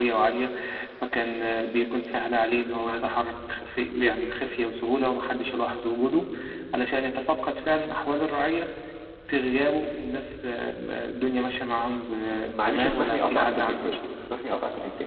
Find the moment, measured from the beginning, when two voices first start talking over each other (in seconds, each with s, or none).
12.3 s